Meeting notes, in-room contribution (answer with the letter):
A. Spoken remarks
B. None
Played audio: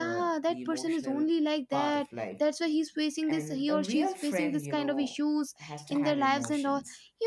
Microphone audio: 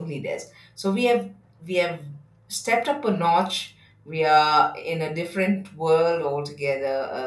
A